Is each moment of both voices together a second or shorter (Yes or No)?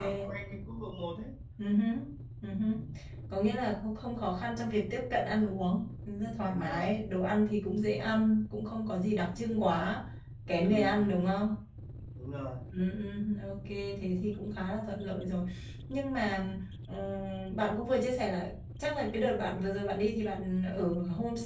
Yes